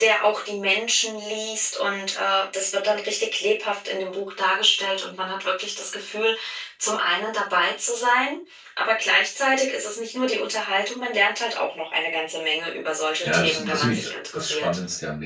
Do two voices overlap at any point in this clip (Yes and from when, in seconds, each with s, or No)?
Yes, from 13.2 s